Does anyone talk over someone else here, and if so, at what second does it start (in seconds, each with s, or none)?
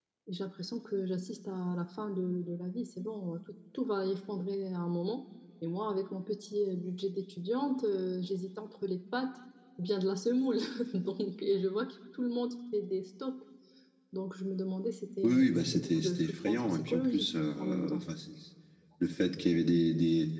15.2 s